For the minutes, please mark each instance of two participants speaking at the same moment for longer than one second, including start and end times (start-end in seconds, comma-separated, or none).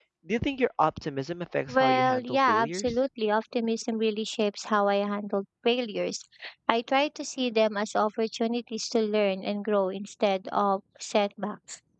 1.7-3.0